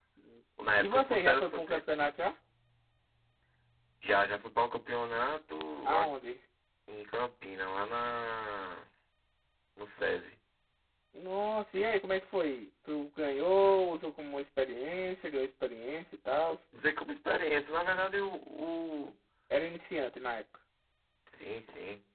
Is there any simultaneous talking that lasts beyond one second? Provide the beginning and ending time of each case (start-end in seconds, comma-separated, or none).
0.6-1.8